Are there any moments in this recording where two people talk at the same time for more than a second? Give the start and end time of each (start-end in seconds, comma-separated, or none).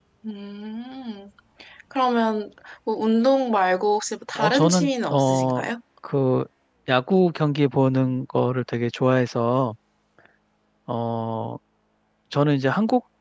4.4-5.6